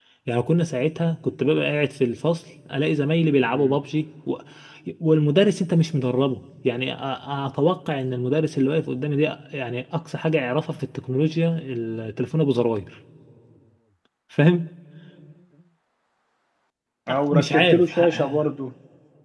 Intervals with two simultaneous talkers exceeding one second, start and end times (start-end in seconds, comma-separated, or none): 17.1-18.4